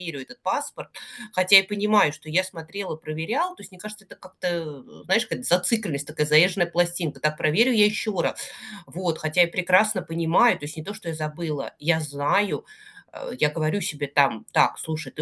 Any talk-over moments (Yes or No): No